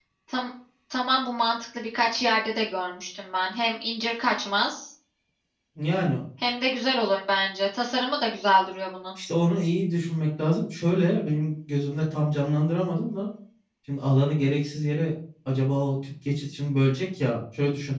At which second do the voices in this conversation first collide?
none

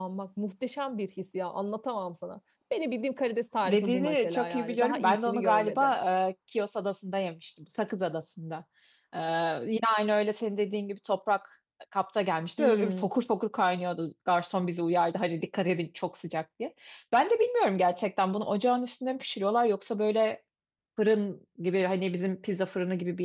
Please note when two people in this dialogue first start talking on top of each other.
3.6 s

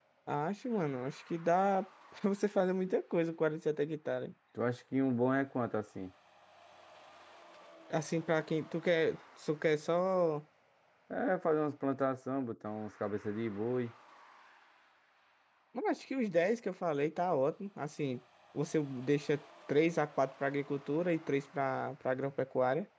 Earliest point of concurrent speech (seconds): none

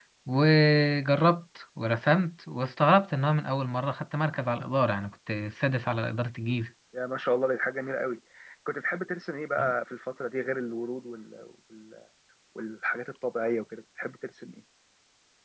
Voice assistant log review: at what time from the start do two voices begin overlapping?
none

